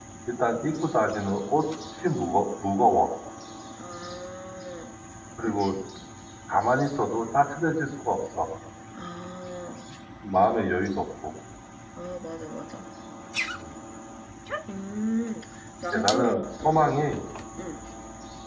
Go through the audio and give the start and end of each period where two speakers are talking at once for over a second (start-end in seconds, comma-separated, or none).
15.9-17.1